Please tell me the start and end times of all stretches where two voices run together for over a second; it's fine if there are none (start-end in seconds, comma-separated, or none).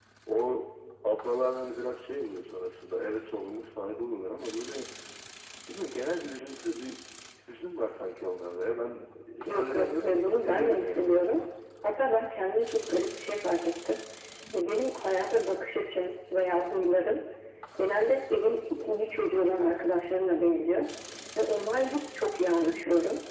9.5-11.4